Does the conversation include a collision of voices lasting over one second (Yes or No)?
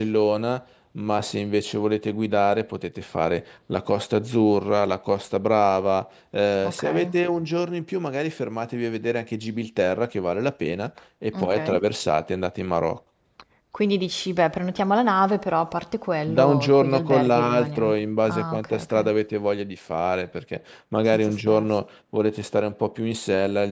Yes